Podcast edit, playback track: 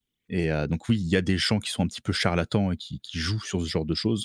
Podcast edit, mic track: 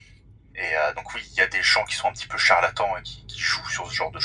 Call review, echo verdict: present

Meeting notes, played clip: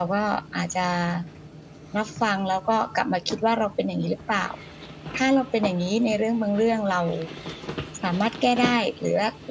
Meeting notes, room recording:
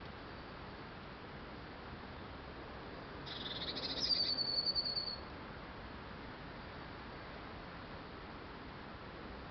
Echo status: none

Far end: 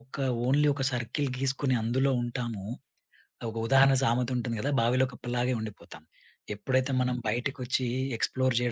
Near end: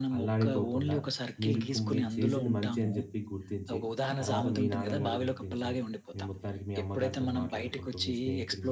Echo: present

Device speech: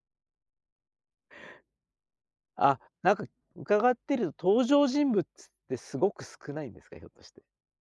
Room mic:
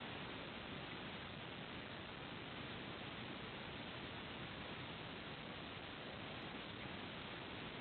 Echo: none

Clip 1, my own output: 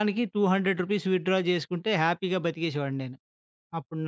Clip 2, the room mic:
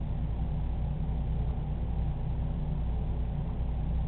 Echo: none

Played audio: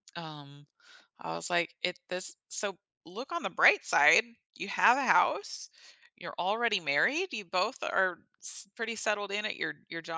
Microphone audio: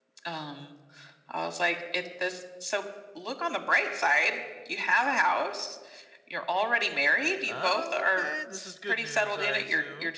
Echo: present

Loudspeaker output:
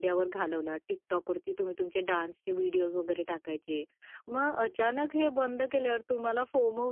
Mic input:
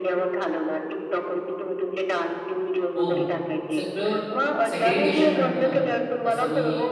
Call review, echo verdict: present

